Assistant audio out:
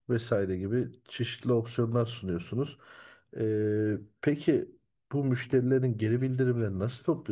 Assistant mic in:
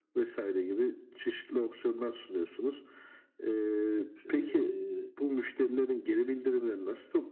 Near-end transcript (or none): Ee,